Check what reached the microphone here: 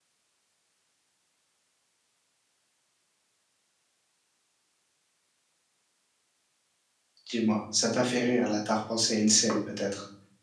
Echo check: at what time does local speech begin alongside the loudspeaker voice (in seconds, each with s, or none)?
7.2 s